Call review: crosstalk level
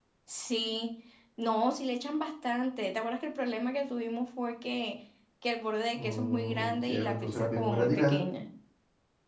present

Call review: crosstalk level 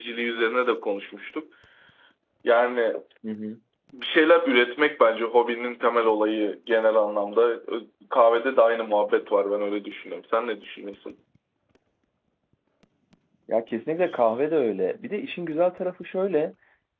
none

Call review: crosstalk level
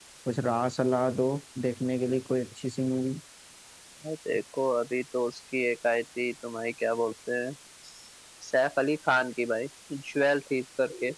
none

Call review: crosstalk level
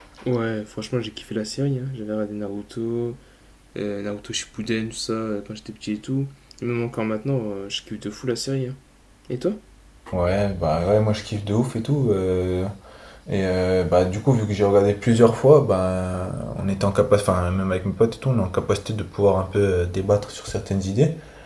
none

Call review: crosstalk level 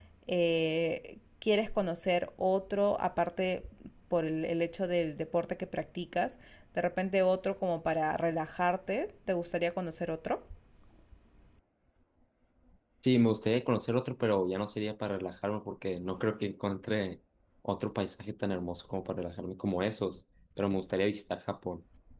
none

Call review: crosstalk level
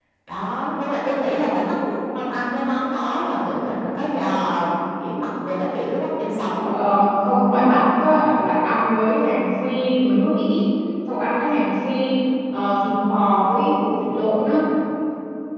none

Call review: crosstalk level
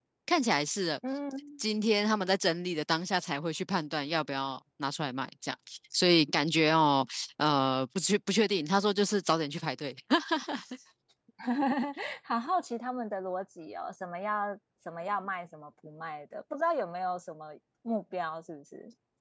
none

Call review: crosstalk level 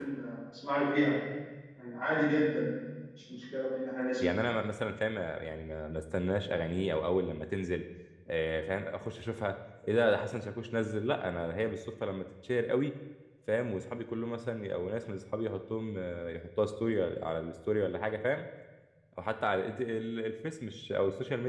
none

